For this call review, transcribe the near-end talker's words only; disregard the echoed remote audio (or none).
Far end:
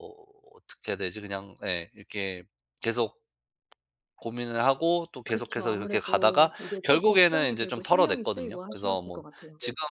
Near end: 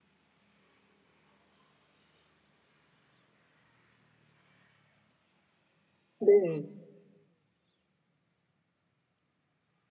네.